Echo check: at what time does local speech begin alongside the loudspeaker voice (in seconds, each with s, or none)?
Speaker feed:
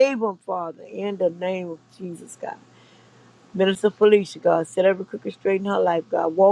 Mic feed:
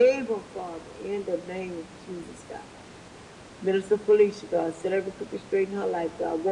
none